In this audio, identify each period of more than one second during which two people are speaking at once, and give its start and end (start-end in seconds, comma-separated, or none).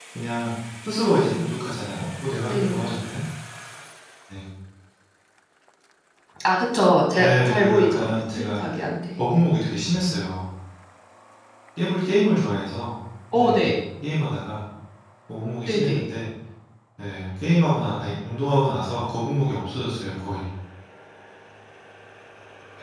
7.2-8.6